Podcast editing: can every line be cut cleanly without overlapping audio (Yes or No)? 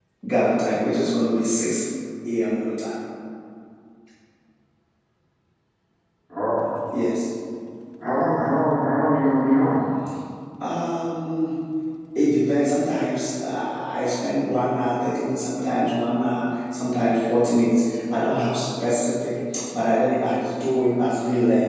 Yes